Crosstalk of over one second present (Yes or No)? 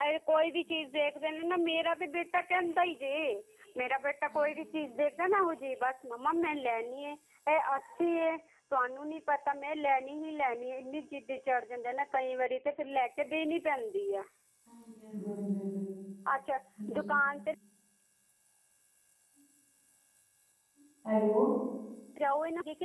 No